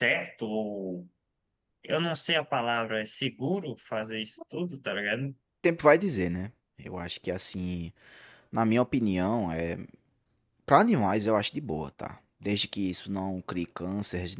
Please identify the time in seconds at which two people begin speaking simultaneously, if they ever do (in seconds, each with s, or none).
none